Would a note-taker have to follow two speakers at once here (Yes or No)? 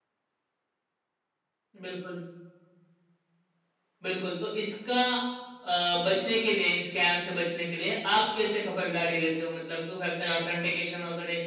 No